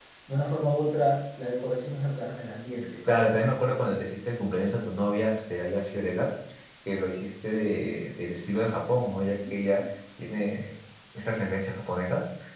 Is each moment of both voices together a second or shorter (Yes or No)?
Yes